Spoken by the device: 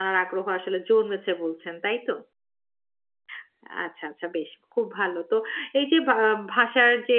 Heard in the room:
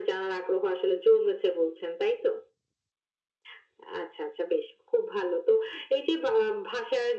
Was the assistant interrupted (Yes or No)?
No